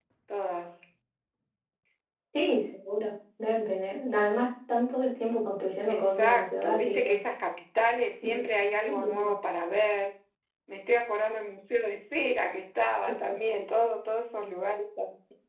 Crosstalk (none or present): present